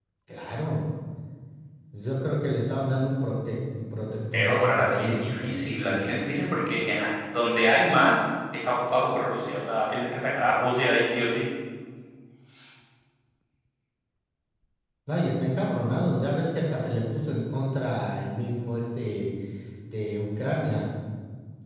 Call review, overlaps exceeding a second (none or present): present